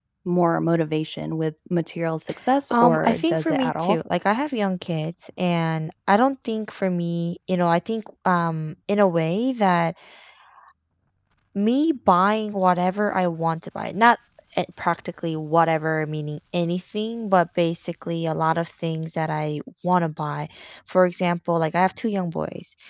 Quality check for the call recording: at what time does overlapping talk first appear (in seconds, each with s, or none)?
2.7 s